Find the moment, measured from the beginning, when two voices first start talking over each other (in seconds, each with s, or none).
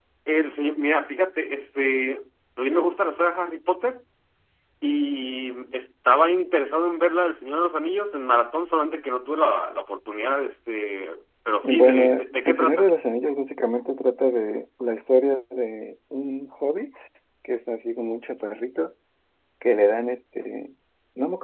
11.6 s